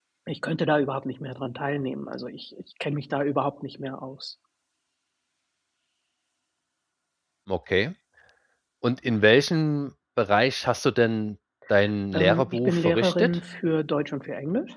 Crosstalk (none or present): present